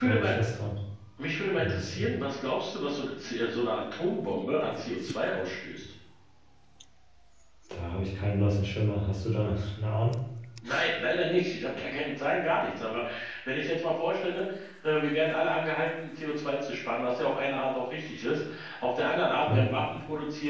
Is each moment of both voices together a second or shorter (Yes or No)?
Yes